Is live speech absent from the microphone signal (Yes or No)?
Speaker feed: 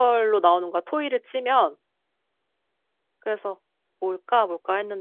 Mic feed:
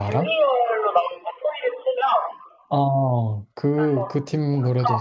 No